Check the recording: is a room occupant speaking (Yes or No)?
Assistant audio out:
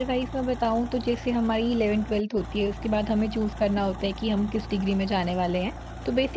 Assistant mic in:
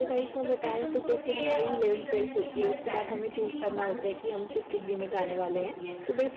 Yes